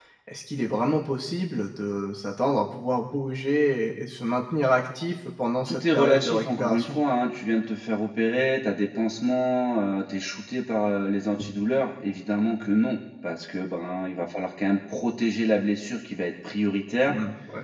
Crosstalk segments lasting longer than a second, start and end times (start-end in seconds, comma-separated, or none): 5.7-7.0